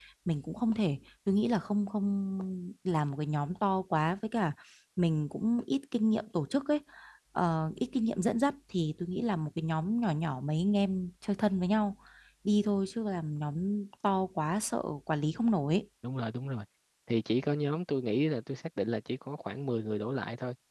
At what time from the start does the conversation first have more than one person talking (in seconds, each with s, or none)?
none